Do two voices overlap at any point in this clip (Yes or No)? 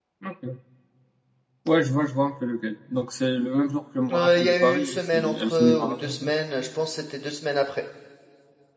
Yes